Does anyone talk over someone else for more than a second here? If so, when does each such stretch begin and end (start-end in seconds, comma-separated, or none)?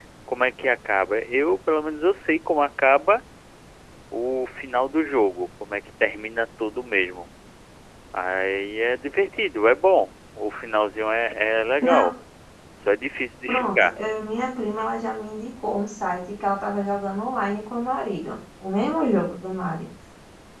none